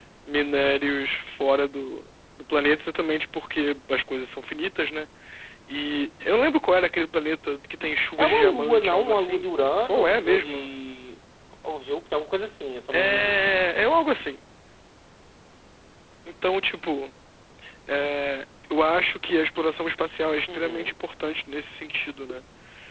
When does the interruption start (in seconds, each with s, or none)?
8.2 s